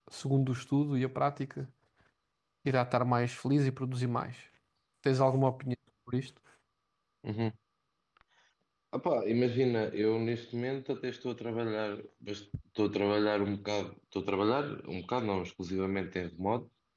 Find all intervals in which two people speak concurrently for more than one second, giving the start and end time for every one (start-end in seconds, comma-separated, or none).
none